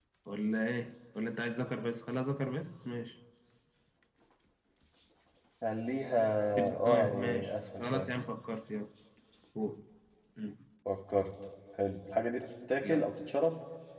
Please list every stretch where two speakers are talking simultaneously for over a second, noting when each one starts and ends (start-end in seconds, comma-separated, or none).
6.8-8.1